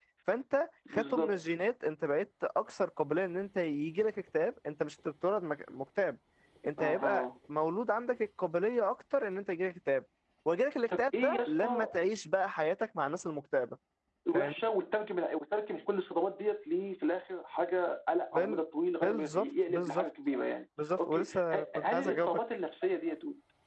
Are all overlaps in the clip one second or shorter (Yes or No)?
No